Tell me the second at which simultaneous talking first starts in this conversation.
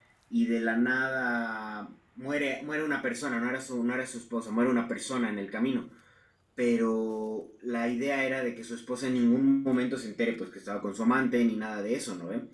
none

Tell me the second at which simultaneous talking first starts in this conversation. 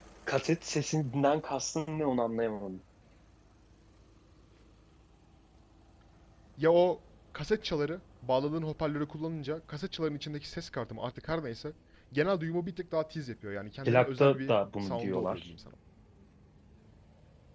13.8 s

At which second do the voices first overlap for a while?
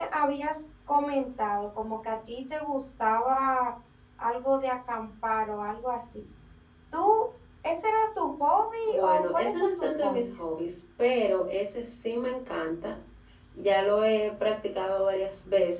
8.9 s

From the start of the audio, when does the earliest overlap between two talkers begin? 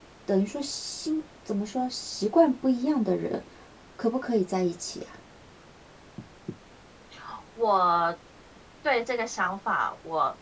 none

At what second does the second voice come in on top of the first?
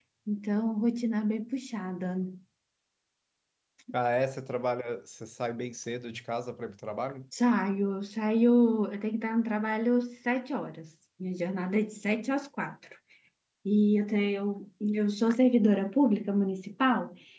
none

